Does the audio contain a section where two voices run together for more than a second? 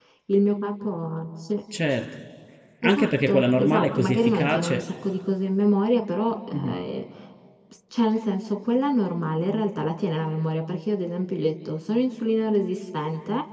Yes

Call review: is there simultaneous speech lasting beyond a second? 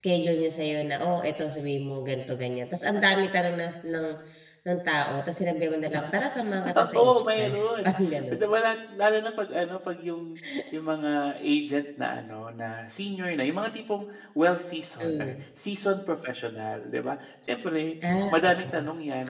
Yes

